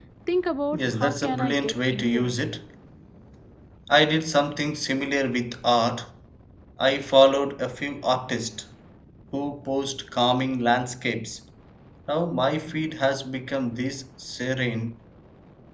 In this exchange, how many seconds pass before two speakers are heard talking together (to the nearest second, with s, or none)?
1 s